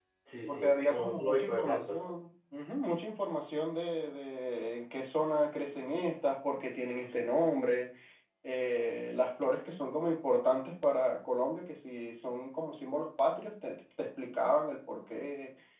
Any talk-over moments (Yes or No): Yes